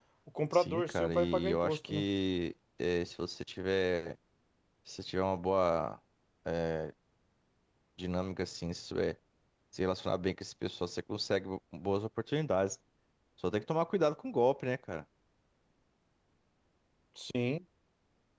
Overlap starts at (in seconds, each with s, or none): 0.5 s